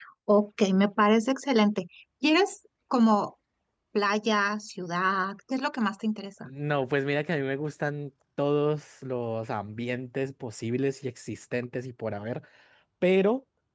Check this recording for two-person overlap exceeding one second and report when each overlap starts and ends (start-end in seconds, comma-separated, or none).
none